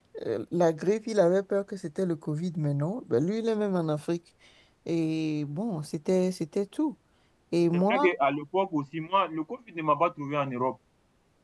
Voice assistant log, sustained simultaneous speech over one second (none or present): none